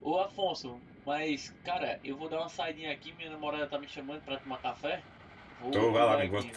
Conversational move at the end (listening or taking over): taking over